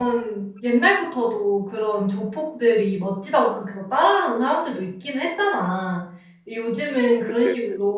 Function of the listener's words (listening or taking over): listening